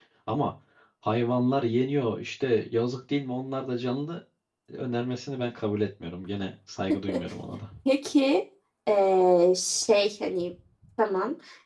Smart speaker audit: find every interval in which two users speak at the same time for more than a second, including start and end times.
none

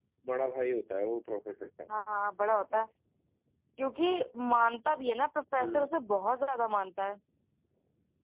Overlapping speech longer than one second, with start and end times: none

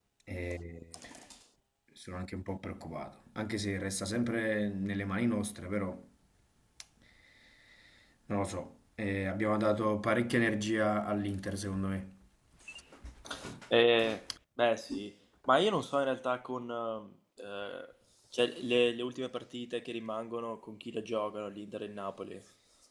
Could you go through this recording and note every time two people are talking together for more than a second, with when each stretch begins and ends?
none

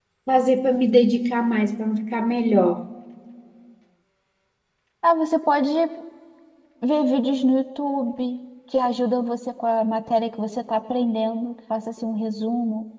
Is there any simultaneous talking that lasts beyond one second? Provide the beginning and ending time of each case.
none

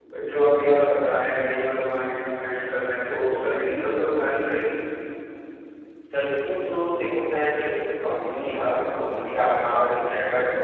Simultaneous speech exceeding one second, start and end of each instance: none

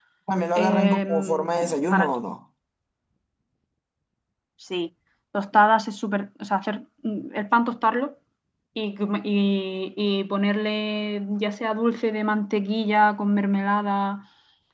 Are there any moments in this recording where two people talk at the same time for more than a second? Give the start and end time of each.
0.6-2.0

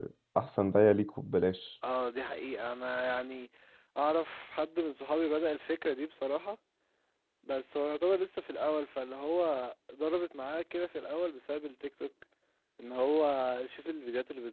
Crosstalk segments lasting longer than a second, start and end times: none

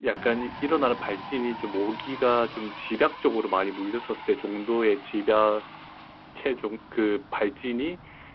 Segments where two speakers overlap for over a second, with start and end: none

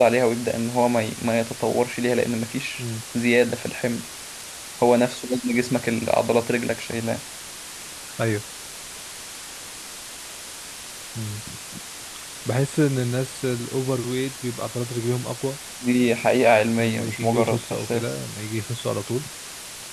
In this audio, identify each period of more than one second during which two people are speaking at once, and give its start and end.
16.8-18.1

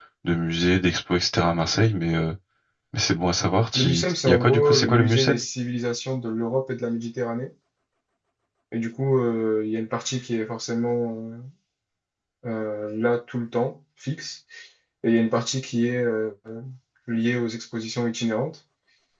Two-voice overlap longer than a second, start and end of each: 3.7-5.3

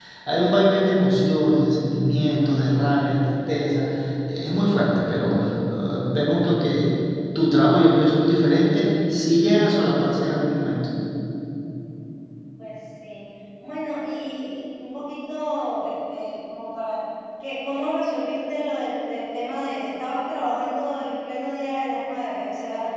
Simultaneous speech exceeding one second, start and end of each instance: none

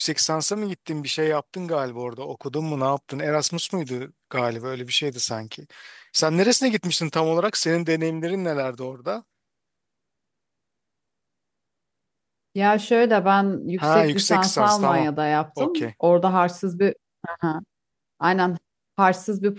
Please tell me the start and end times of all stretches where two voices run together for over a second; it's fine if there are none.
13.8-15.1

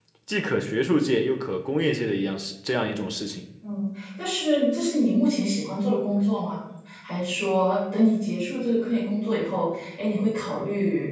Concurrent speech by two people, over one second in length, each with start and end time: none

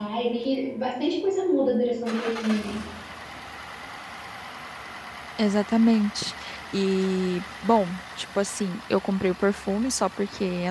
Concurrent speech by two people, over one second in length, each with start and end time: none

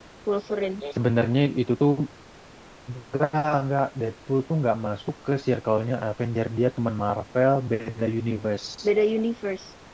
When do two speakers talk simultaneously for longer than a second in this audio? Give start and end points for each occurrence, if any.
none

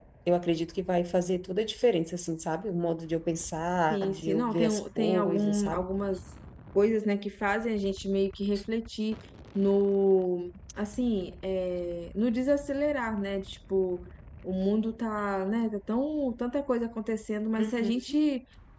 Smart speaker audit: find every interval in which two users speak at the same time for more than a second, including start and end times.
3.9-5.8

